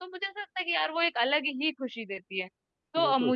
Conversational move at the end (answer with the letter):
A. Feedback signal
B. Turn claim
A